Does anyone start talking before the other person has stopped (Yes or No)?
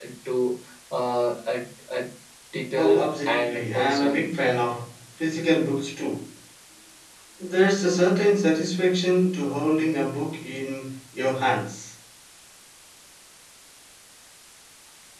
Yes